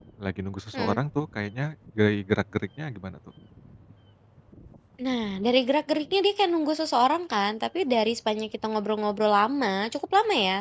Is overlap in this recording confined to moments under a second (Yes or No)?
Yes